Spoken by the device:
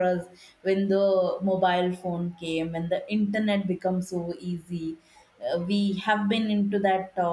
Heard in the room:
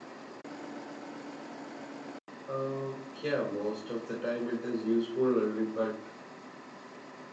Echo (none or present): none